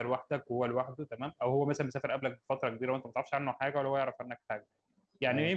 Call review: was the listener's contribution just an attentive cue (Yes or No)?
Yes